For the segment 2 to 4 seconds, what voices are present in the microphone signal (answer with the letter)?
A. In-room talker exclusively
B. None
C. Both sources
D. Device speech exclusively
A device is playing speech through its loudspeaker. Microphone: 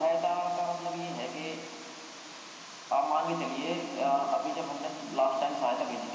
D